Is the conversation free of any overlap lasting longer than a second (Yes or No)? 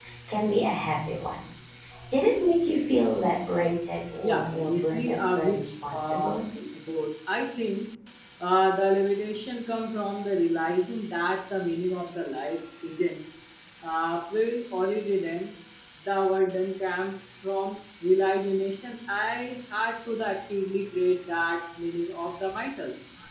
No